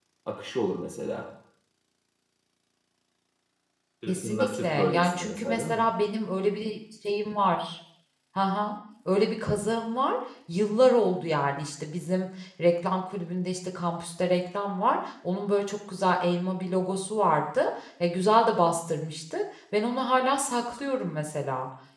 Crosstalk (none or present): present